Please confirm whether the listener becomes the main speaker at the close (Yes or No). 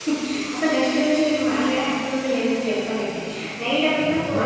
No